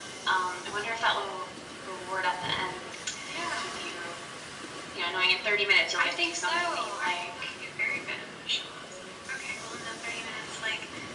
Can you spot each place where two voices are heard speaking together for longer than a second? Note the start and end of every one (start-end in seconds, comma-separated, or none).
6.0-7.5